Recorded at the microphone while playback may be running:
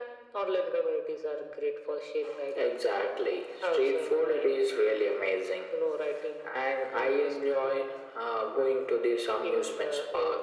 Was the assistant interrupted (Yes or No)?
No